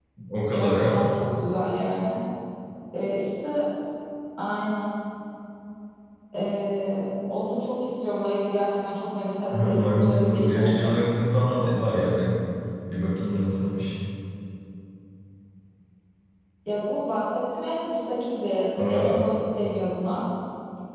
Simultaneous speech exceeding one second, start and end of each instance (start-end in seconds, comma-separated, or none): 9.5-10.9